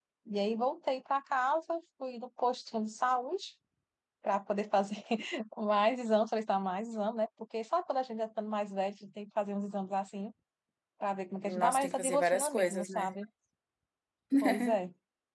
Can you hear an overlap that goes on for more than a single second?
Yes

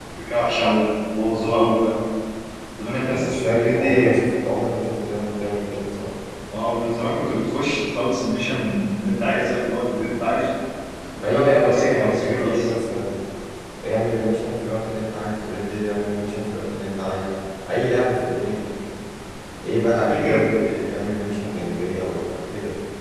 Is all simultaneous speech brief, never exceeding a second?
No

